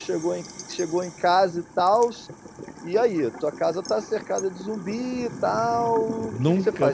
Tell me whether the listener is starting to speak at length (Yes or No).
Yes